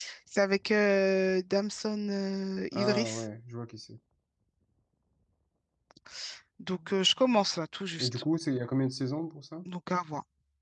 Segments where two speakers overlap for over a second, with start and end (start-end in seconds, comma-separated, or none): none